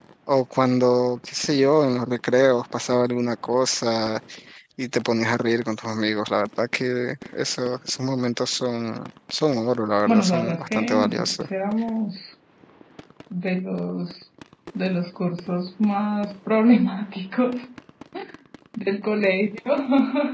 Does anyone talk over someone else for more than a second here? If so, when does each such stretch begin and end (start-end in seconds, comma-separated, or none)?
10.1-11.4